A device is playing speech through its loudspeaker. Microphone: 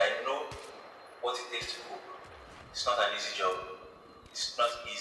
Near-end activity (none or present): none